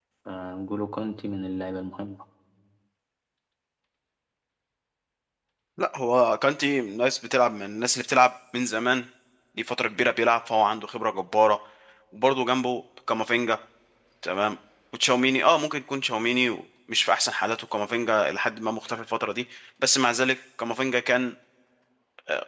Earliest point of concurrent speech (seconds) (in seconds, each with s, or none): none